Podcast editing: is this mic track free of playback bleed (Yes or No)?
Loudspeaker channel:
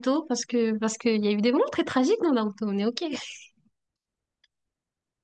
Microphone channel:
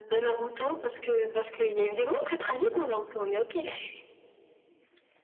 No